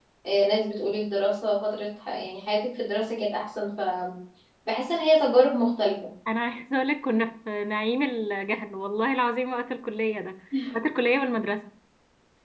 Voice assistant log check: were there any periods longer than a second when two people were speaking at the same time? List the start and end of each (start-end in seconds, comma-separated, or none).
none